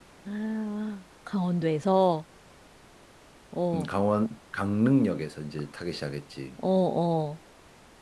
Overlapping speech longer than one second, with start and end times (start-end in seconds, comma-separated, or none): none